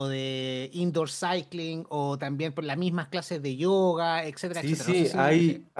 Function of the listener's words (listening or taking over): taking over